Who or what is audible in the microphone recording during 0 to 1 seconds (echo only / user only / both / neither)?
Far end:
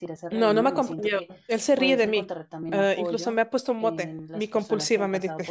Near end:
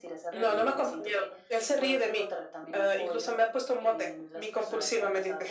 echo only